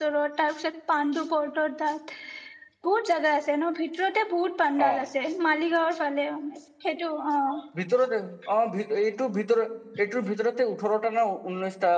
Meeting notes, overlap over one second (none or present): none